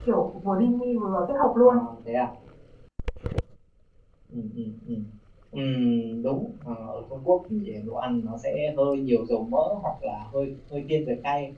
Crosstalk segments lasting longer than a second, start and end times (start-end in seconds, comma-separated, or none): none